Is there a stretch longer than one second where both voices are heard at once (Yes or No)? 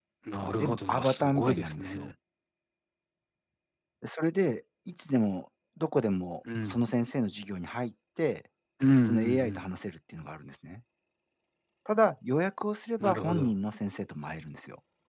Yes